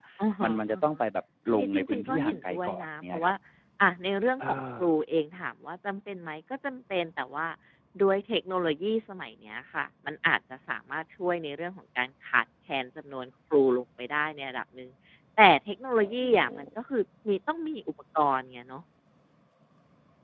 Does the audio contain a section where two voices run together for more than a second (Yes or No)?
Yes